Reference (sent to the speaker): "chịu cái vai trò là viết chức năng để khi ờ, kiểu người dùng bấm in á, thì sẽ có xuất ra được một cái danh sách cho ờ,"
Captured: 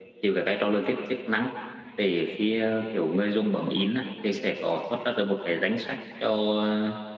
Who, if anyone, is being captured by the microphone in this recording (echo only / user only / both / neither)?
echo only